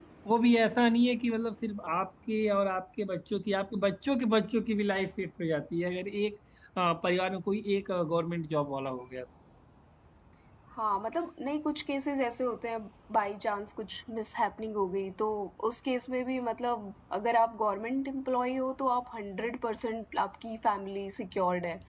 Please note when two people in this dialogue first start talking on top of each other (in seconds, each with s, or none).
none